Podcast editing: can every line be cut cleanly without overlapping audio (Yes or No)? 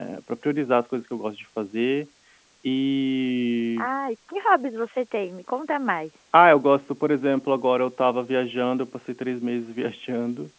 Yes